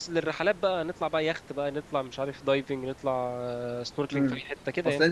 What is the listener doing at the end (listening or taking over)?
taking over